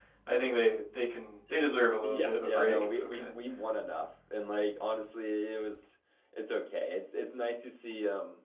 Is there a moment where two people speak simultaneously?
Yes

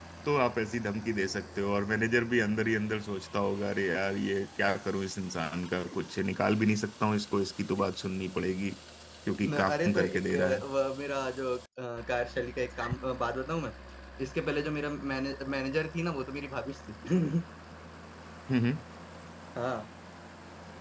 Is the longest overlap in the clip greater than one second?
Yes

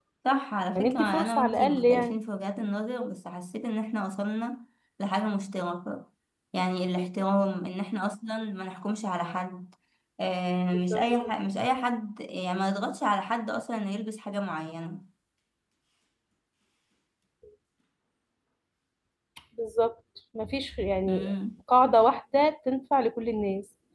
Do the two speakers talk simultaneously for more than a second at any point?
Yes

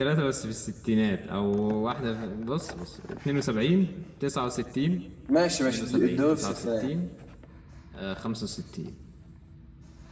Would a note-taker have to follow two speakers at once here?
Yes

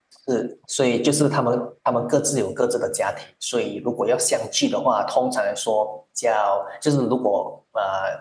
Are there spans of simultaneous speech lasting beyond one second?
No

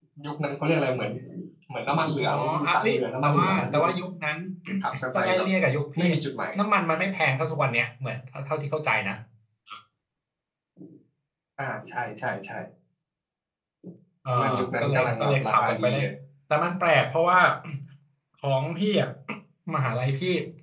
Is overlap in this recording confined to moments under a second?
No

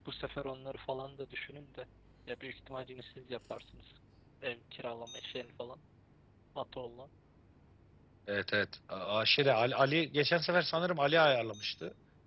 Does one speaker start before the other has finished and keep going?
No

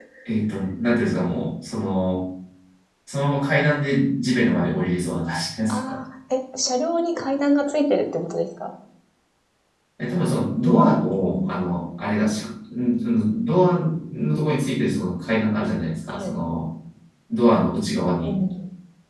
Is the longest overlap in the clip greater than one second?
No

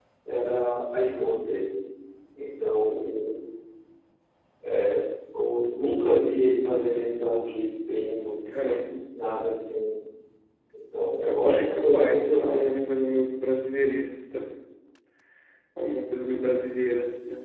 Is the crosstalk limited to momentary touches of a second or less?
No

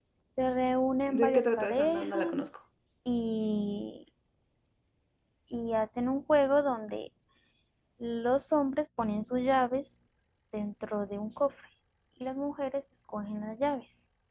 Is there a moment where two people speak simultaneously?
Yes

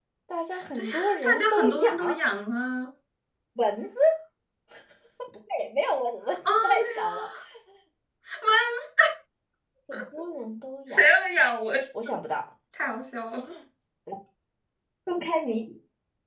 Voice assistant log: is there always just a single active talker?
No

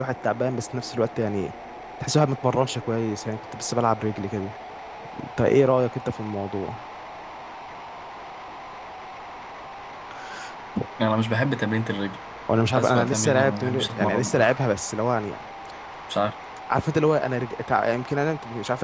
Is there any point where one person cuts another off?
Yes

